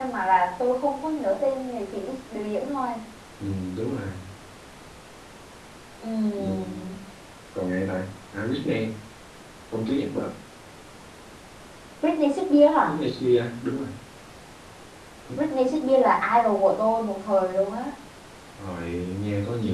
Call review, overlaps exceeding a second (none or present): none